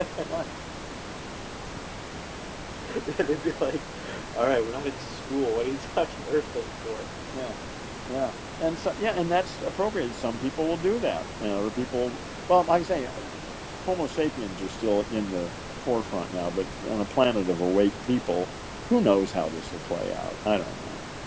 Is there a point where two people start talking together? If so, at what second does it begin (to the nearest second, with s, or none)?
none